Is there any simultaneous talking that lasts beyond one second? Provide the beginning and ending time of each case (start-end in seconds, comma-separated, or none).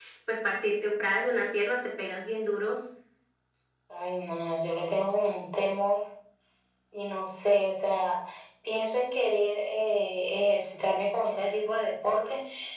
none